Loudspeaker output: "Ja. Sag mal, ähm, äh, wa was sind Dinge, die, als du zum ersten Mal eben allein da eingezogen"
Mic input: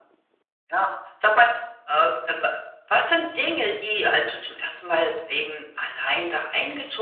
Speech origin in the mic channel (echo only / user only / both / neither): echo only